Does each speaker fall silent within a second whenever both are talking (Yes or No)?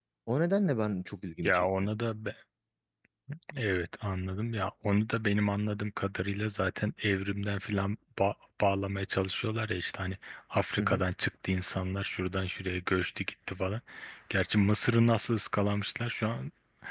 Yes